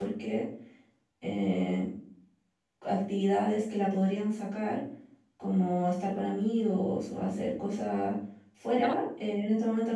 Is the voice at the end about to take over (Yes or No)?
No